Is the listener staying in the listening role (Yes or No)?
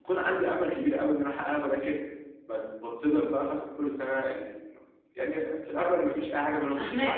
No